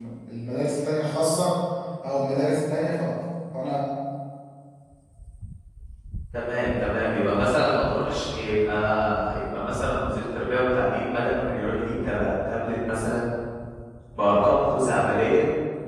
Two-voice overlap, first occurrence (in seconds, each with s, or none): none